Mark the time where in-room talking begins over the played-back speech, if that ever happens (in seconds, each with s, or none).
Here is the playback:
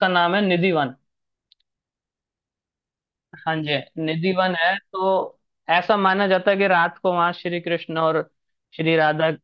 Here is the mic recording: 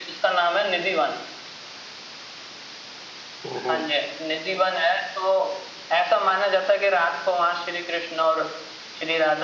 3.5 s